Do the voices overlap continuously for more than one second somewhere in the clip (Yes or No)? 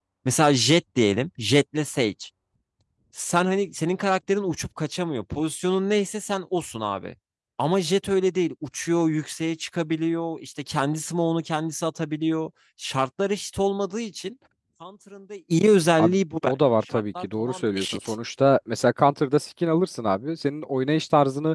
Yes